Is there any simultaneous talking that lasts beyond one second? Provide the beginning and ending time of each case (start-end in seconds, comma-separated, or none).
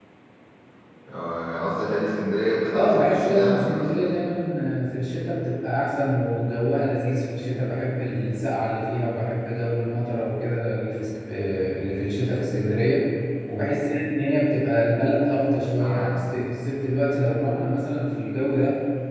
2.7-4.1